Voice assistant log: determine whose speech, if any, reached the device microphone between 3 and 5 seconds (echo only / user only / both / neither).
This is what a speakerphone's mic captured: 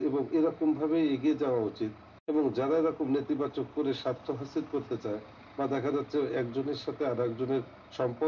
echo only